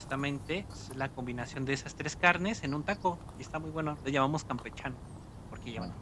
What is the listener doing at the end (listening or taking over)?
taking over